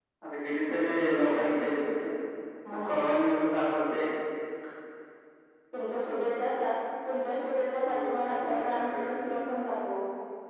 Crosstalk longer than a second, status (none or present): present